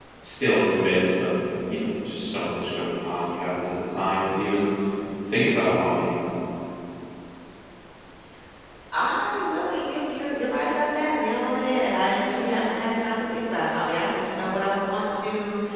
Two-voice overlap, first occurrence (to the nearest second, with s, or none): none